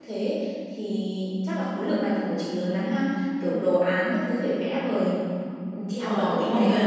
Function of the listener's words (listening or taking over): taking over